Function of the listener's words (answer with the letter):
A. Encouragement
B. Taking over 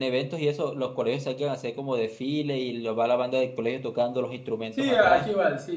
B